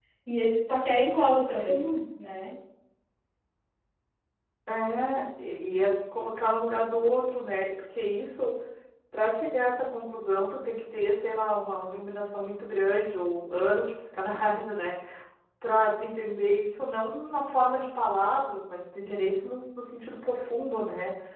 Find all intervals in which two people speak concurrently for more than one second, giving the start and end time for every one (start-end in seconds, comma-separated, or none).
none